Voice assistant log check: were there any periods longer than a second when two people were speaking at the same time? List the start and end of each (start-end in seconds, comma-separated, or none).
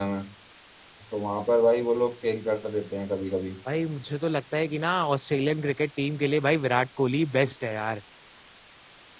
none